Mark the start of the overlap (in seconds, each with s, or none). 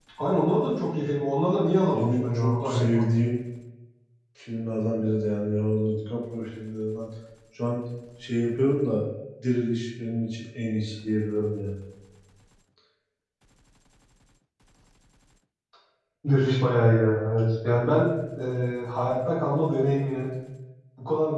1.9 s